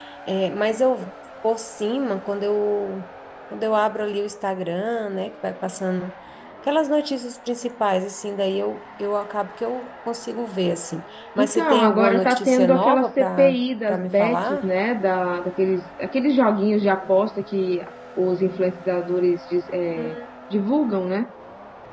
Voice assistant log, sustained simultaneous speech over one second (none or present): present